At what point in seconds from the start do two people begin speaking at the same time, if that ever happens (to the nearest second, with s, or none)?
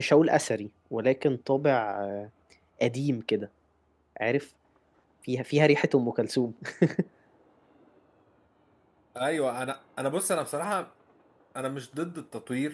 none